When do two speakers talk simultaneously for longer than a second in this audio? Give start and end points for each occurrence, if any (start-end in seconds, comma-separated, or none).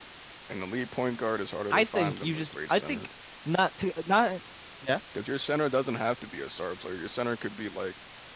1.7-3.1